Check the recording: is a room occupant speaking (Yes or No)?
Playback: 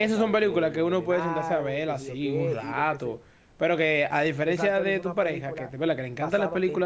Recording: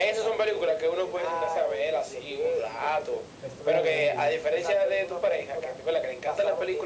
Yes